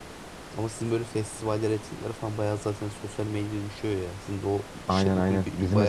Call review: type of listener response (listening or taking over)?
taking over